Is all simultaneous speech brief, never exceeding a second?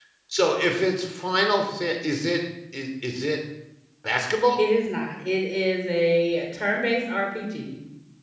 Yes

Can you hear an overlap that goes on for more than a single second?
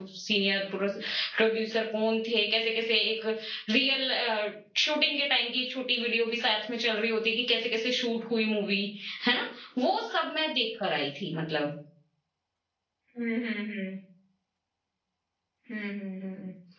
No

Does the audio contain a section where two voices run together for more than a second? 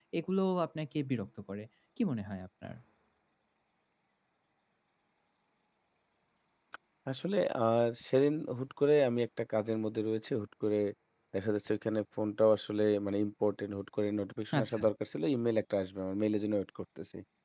No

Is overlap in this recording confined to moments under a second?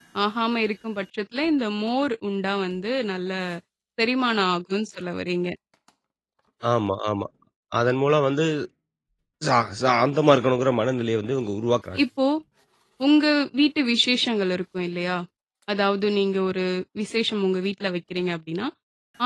Yes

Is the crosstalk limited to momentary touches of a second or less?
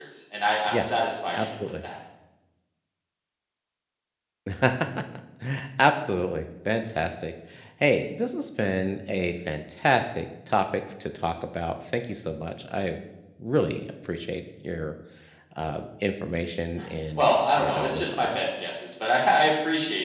No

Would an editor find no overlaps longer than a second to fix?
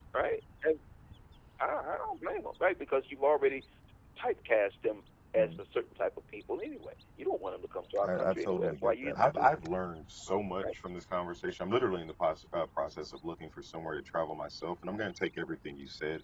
No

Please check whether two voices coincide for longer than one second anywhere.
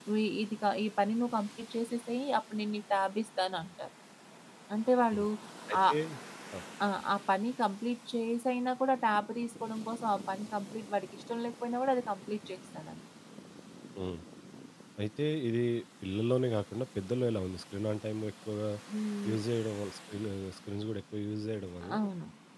No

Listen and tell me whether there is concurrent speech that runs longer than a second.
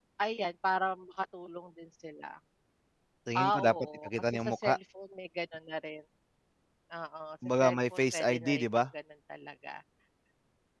Yes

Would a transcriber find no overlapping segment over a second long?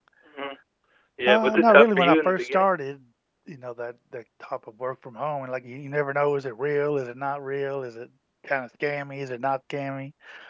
No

